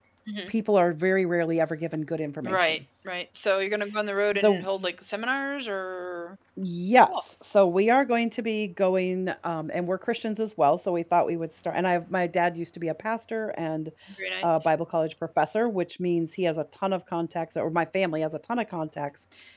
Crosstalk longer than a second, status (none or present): none